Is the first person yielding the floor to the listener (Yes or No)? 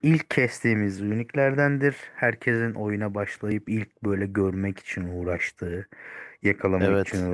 No